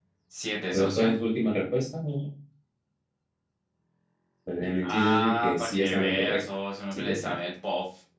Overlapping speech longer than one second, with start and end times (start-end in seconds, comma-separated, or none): 4.8-6.4